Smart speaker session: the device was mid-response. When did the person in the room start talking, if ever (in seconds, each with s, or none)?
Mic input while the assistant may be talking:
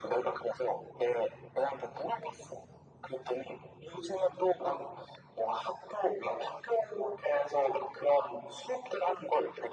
none